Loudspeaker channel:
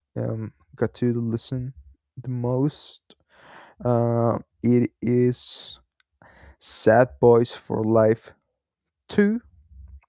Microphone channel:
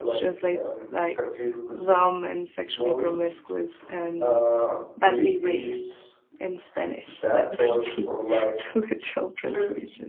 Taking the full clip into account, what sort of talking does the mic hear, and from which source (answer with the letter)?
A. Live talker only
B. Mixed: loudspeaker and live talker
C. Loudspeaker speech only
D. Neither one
B